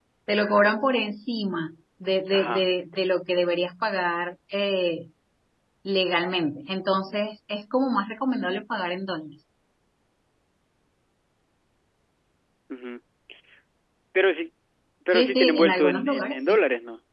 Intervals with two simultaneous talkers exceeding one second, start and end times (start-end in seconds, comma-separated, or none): 15.1-16.6